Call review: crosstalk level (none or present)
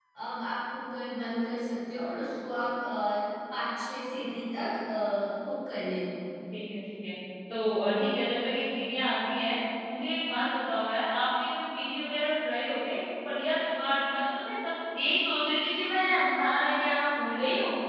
none